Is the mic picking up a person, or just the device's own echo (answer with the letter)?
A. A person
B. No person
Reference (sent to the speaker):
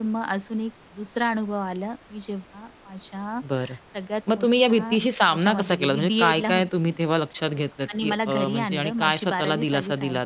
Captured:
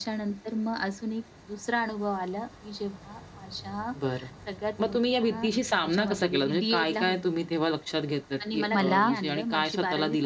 A